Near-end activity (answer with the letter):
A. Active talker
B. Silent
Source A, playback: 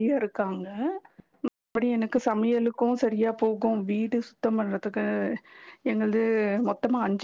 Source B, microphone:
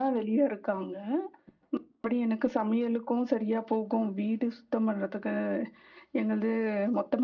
B